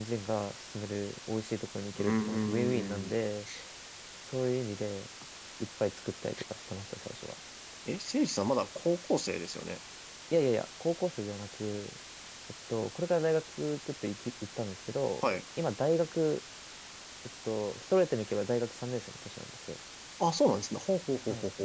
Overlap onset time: 1.9 s

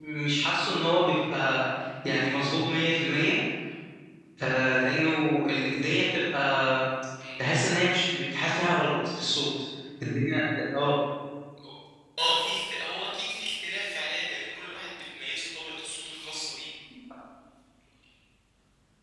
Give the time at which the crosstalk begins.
none

